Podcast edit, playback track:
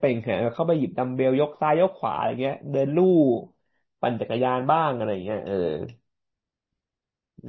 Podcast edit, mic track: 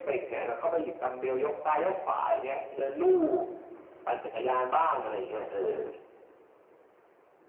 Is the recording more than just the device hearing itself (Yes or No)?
No